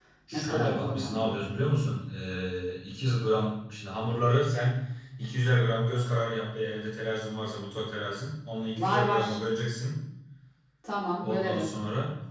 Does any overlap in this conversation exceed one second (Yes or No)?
Yes